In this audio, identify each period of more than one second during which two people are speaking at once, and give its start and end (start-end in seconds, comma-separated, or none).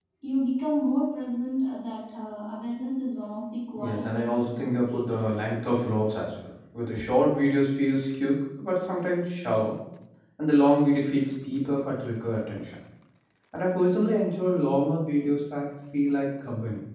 3.8-5.6